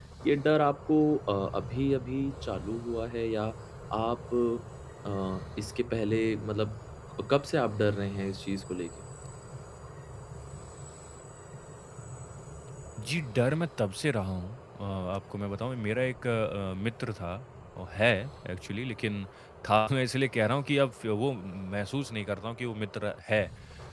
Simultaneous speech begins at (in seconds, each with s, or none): none